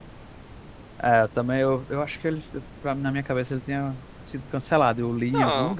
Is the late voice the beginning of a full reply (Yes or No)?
Yes